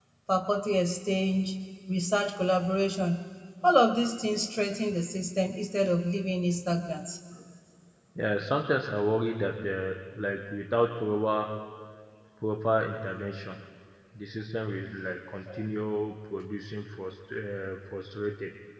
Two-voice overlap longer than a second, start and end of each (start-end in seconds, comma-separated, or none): none